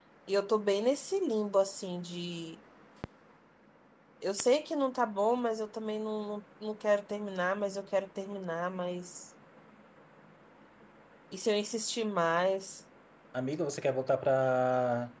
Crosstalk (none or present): none